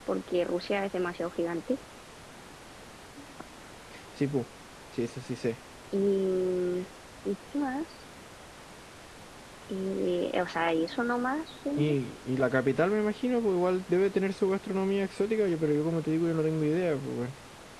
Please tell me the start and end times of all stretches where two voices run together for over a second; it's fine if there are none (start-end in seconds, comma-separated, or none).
none